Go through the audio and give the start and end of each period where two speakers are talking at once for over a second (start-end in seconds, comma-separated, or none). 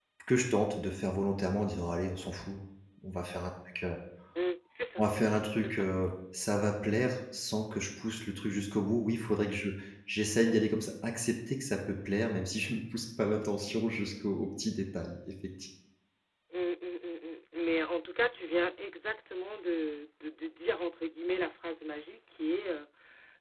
none